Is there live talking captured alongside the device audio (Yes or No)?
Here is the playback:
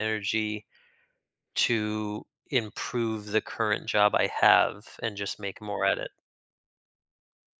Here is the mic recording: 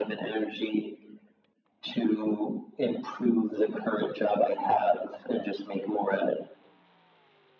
No